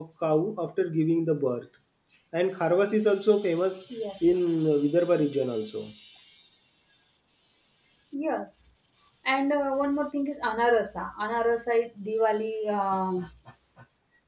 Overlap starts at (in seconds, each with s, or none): none